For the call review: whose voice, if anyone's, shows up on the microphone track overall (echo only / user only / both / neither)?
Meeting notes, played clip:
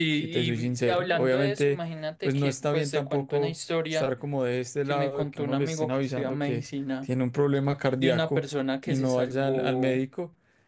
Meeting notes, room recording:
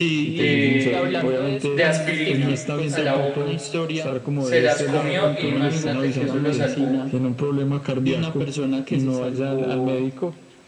both